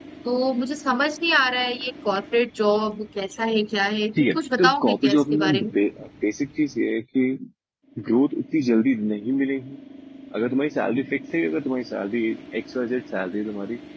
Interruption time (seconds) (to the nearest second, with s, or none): 4 s